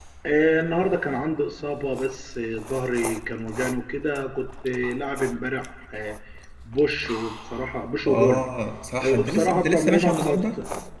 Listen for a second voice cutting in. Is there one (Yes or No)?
Yes